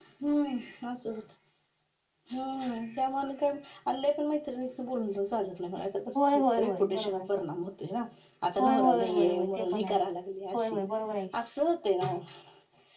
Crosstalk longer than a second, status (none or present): present